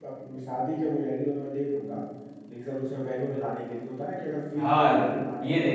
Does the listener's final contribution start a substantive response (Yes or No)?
Yes